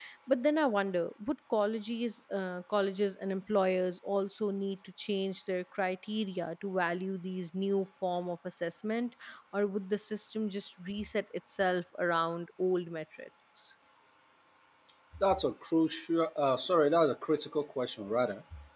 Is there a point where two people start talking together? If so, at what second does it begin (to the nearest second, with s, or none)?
none